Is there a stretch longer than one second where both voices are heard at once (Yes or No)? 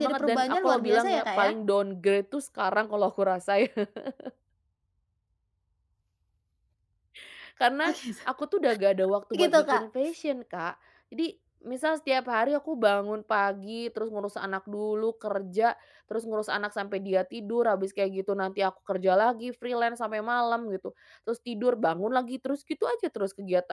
Yes